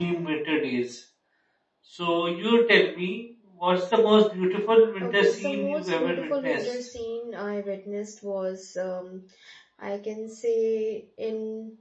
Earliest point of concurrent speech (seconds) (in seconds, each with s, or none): 5.0 s